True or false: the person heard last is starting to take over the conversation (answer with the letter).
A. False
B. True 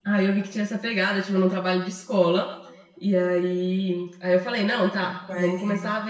A